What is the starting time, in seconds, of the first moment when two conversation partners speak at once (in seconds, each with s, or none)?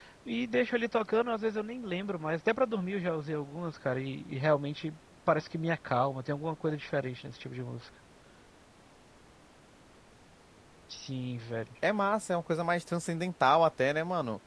none